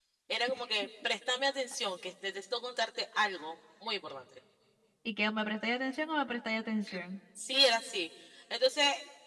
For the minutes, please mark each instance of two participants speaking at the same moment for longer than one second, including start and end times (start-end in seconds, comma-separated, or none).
none